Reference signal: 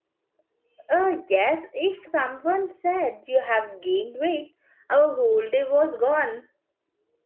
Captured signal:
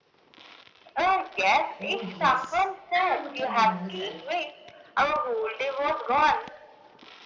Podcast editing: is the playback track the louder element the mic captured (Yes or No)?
Yes